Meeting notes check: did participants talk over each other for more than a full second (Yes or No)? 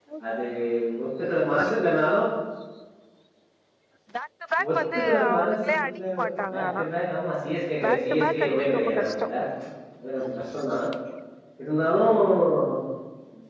Yes